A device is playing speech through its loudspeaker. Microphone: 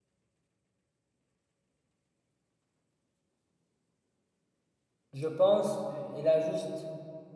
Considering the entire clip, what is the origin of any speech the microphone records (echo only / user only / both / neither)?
user only